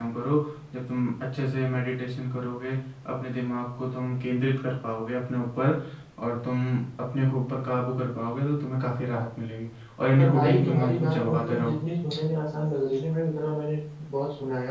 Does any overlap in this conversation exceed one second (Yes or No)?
Yes